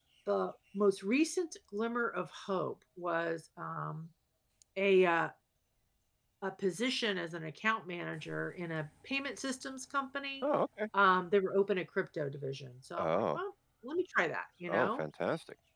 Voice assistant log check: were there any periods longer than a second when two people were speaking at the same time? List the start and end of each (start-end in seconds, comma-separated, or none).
none